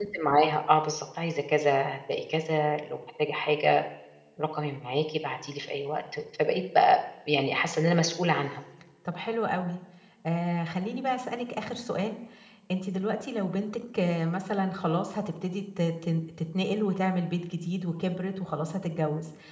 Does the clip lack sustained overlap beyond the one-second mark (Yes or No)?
Yes